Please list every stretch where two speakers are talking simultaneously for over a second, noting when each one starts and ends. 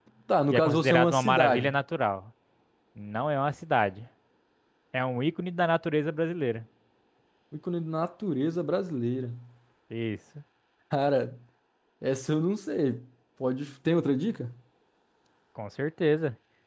0.5-1.7

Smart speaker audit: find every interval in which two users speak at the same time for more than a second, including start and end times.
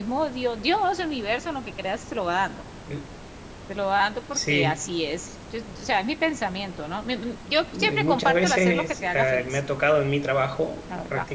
7.8-9.6

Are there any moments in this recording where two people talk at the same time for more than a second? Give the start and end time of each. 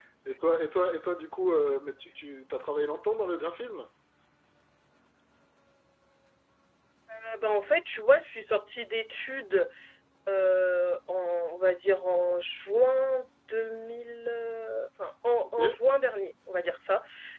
none

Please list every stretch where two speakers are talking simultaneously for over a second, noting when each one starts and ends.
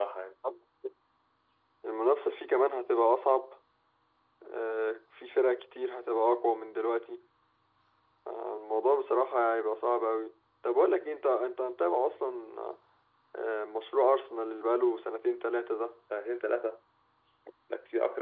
none

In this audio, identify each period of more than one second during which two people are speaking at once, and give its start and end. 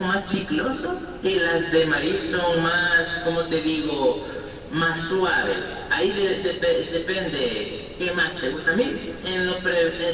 none

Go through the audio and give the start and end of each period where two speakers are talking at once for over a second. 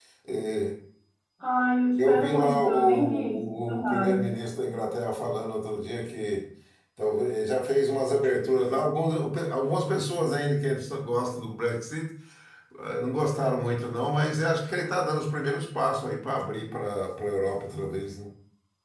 2.0-4.2

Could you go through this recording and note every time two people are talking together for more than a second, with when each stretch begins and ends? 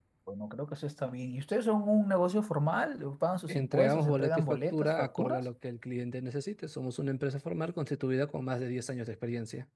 3.5-5.4

